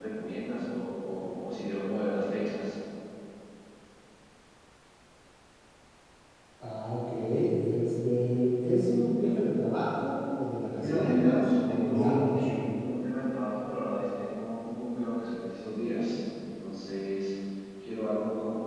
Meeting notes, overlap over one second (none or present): present